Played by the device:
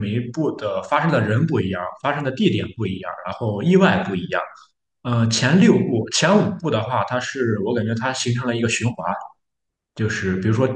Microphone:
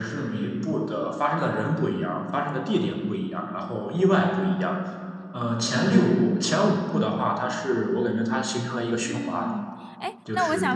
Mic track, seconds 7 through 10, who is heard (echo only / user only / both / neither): both